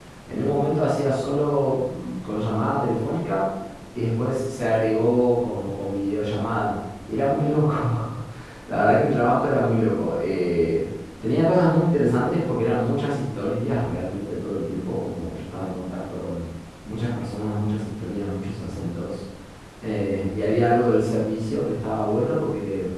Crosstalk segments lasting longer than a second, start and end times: none

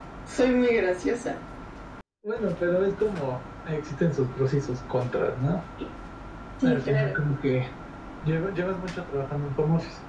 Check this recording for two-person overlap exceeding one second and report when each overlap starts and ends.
none

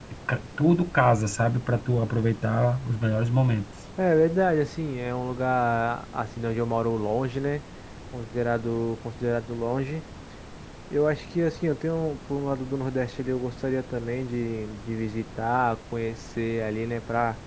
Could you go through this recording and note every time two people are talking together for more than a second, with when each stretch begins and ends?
none

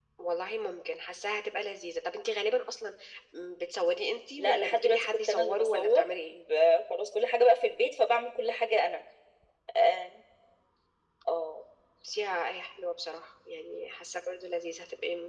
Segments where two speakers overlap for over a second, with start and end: 4.4-6.4

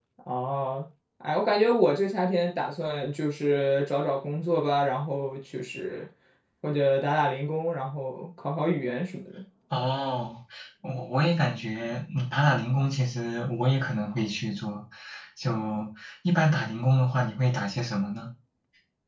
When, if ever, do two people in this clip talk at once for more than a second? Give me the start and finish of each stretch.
none

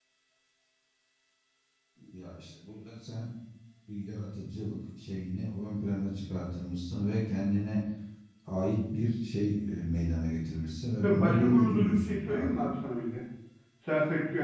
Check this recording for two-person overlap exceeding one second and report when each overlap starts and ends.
11.0-12.7

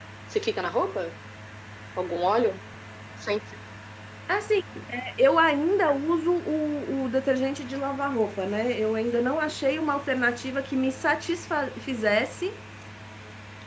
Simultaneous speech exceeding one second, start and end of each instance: none

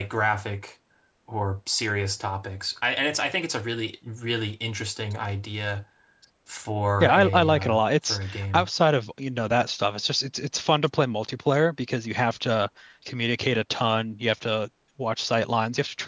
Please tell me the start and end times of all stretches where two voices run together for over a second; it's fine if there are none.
7.0-8.7

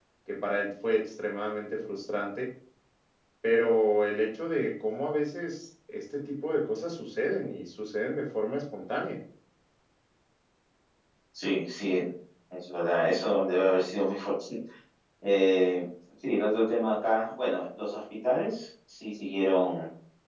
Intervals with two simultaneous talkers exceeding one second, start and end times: none

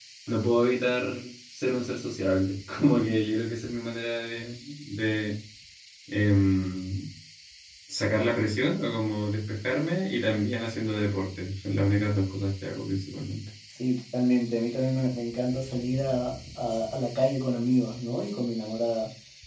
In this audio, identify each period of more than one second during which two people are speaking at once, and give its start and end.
none

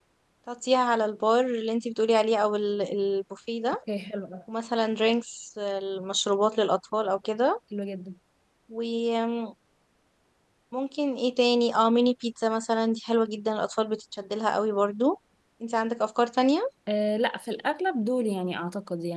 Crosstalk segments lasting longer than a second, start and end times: none

